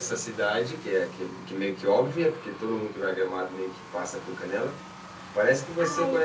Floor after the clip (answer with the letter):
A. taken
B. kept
B